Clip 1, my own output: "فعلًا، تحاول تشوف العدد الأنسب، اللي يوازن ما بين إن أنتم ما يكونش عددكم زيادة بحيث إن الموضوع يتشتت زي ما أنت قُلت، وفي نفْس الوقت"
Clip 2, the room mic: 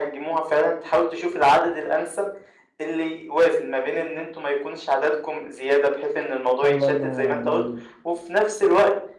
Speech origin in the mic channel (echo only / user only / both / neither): both